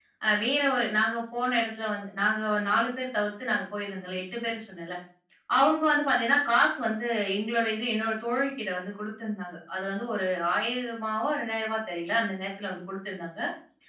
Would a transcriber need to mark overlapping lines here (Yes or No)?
No